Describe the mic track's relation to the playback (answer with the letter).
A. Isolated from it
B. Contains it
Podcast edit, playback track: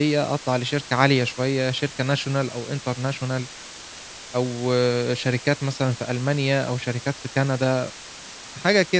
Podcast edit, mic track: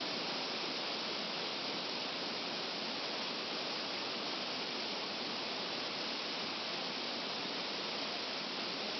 A